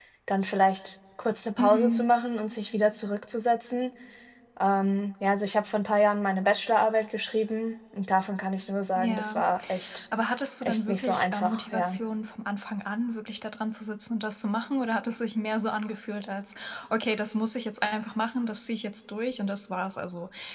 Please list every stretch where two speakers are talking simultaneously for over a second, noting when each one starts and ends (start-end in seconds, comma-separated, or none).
10.6-12.0